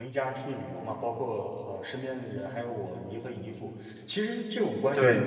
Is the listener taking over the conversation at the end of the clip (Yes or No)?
No